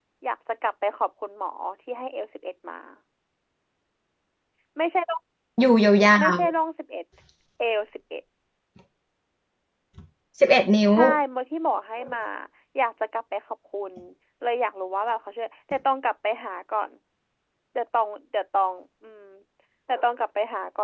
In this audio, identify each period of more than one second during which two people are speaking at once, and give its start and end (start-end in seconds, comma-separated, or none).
none